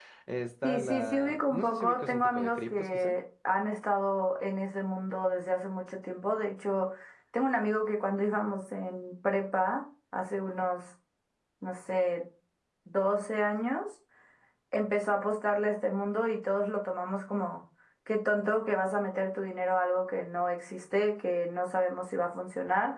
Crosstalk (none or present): present